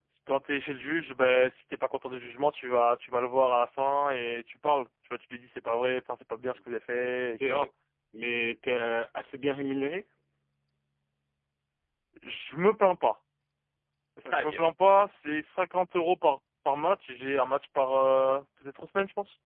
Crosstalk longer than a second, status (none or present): none